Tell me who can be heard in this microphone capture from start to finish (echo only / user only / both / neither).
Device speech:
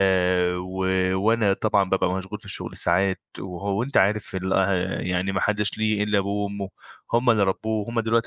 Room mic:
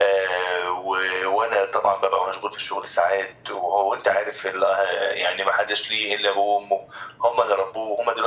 echo only